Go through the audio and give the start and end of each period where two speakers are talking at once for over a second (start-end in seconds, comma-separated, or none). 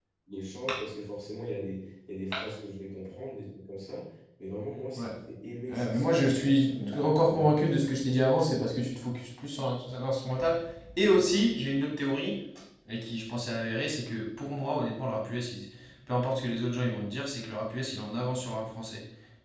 5.7-7.6